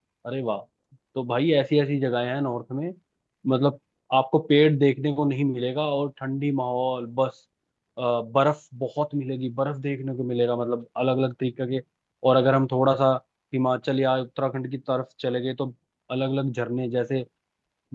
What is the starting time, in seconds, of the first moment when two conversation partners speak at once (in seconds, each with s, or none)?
none